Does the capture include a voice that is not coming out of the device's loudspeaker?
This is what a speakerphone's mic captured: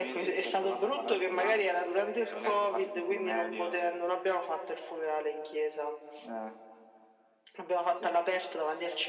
No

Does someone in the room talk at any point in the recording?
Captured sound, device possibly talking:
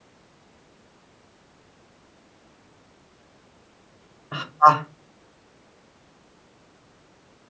Yes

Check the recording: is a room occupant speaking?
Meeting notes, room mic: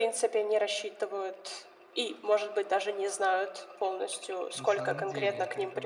Yes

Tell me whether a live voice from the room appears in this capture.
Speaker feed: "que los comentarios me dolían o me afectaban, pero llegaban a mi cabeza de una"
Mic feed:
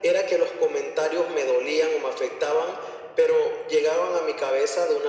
No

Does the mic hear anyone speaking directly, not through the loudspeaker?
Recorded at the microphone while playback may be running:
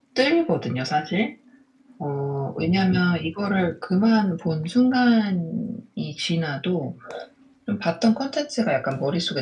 No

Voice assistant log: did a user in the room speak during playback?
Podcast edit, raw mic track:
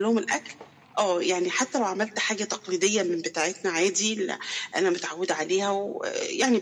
No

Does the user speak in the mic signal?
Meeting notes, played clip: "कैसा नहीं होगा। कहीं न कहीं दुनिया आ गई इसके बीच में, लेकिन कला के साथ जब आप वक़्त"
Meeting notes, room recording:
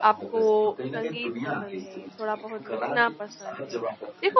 Yes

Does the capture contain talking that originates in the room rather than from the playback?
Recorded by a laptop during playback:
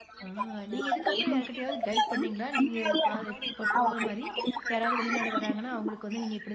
Yes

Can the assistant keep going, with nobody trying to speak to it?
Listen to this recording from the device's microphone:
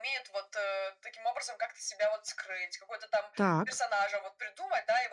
No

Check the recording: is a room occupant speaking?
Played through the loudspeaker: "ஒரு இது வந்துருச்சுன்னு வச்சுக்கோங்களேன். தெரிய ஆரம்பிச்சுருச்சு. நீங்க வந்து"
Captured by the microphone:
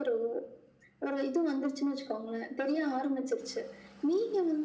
No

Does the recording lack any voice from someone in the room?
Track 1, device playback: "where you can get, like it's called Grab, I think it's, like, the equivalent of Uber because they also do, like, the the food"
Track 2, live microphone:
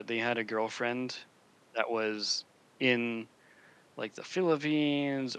No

